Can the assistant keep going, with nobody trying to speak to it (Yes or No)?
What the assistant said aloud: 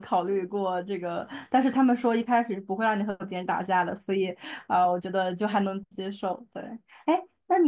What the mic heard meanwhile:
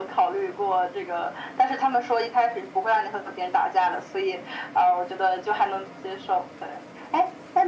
Yes